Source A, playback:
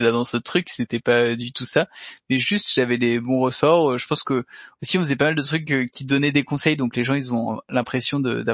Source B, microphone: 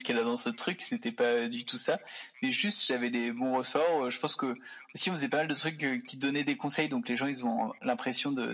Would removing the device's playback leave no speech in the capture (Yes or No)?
Yes